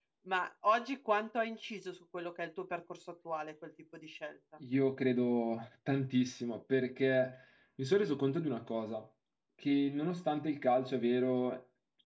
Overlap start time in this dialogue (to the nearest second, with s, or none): none